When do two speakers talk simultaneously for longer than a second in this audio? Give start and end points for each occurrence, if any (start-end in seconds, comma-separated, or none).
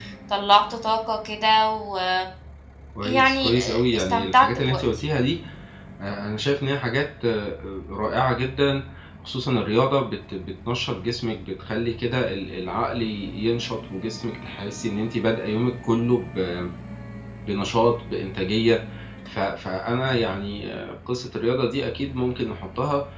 3.0-4.8